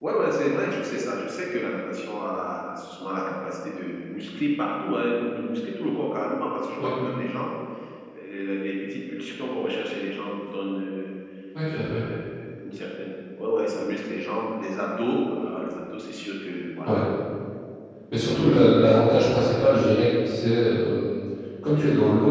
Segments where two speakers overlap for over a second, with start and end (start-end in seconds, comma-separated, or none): 18.1-19.4